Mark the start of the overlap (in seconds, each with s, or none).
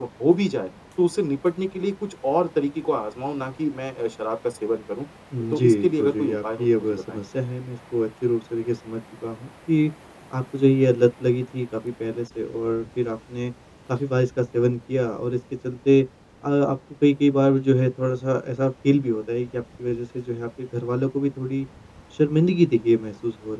5.5 s